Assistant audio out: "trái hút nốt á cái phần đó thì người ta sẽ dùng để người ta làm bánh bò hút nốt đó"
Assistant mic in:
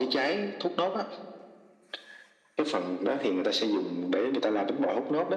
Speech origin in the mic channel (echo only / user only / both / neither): echo only